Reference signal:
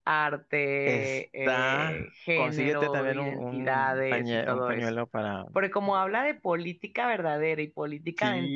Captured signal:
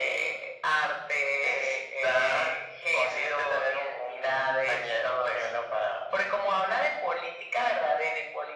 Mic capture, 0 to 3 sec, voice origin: echo only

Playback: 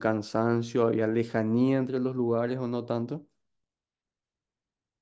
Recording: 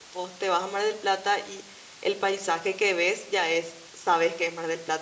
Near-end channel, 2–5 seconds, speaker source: user only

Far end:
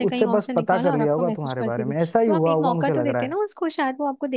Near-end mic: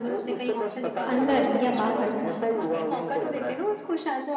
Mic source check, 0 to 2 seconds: both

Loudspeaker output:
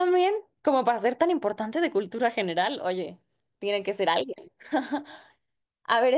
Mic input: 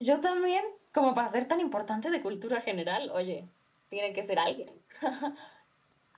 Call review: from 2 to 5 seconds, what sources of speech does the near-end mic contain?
echo only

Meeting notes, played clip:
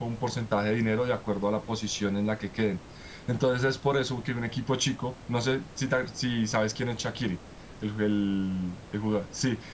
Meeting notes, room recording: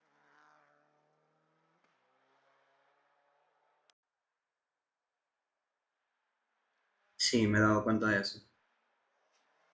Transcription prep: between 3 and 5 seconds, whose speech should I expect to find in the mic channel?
neither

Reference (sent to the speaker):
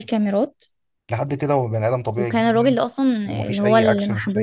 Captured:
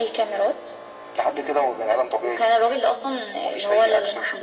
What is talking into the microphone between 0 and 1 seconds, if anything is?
echo only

